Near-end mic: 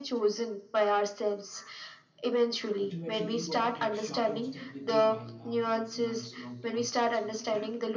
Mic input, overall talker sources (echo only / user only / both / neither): both